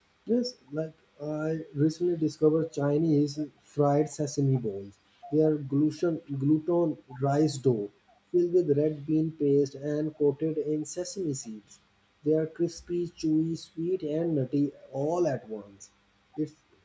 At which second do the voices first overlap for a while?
none

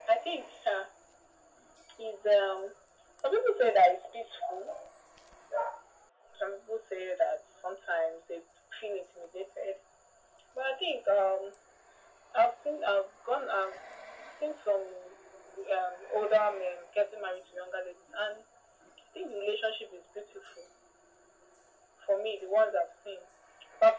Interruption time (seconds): none

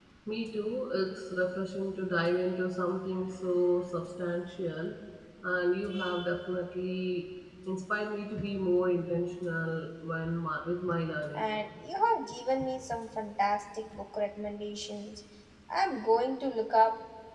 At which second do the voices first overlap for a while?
none

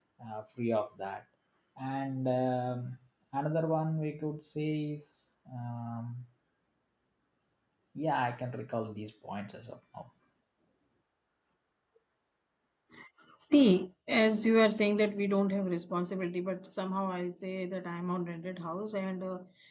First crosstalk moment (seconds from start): none

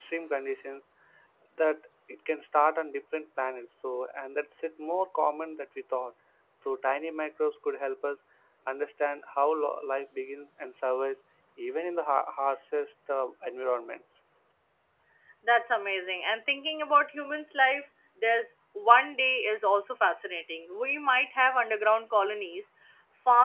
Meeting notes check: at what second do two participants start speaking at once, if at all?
none

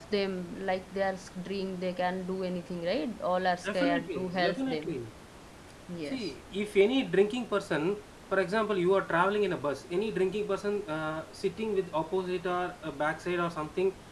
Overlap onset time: 3.6 s

